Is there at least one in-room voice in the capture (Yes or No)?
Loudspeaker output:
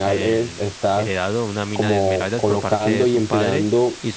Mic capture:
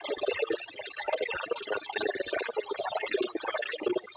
No